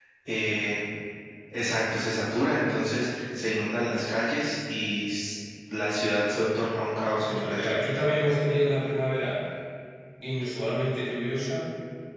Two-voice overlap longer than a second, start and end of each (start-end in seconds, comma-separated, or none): none